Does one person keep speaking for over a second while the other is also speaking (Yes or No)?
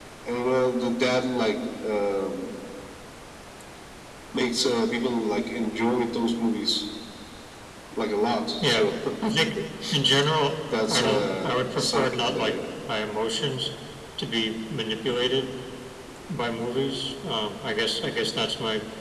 Yes